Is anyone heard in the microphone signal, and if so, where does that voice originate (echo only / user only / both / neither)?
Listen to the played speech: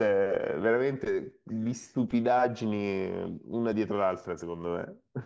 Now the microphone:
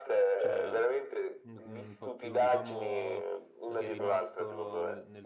both